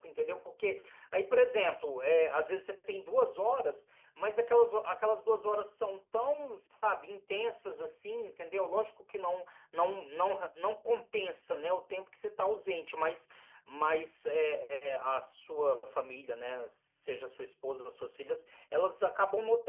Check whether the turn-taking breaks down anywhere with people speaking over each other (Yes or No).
No